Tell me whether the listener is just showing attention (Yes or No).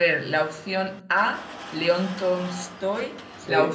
Yes